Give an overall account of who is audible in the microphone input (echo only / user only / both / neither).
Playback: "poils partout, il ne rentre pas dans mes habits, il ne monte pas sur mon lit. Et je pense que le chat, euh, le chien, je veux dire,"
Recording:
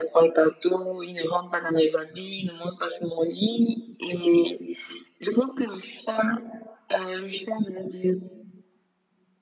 echo only